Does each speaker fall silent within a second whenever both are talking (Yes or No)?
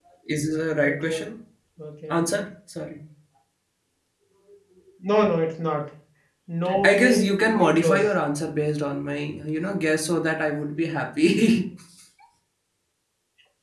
No